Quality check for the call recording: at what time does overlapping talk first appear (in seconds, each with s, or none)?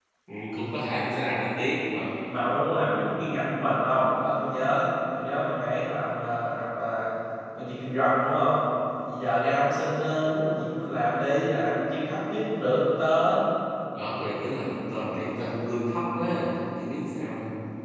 none